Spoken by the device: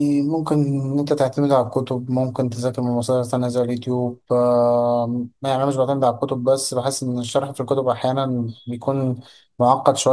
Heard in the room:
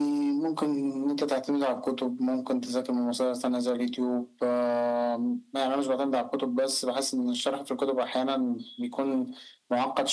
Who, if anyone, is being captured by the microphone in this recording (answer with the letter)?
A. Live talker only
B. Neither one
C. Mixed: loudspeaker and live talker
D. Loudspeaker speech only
D